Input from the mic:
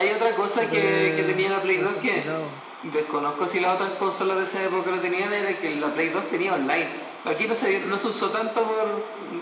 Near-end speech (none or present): present